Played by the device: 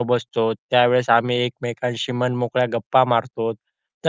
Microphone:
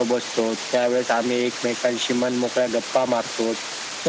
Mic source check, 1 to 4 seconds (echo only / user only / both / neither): echo only